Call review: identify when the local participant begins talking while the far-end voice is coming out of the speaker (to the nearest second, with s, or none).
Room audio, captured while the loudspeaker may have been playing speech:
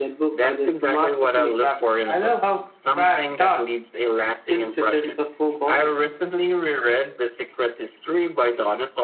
none